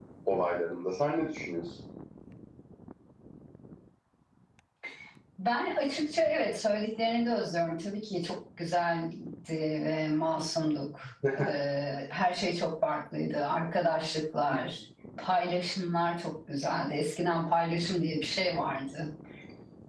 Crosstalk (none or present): none